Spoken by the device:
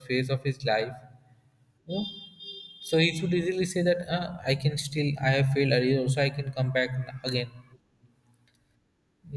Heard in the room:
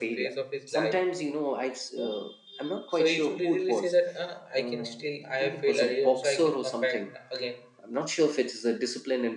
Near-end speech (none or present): present